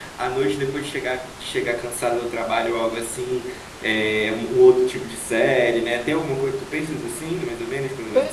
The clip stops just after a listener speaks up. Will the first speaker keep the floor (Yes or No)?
No